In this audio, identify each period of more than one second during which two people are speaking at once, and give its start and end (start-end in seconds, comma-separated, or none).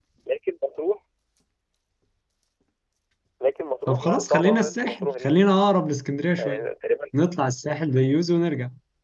3.9-5.3